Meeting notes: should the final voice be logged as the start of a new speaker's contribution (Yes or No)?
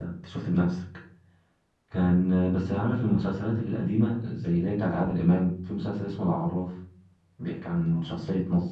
No